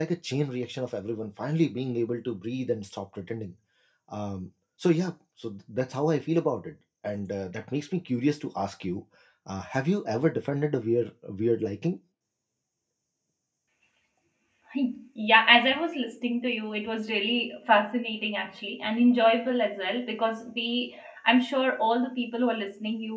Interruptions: none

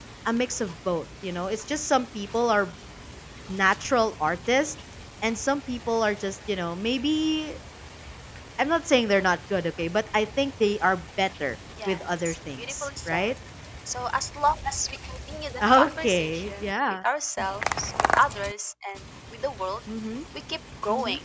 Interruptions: present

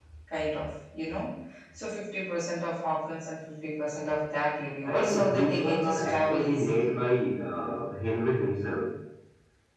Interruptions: present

